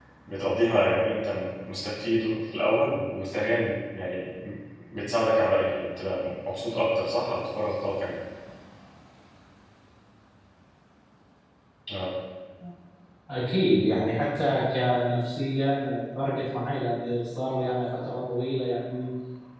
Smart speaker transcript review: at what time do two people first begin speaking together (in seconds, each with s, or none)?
none